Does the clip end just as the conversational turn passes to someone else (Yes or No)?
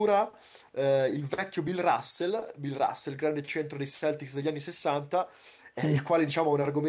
No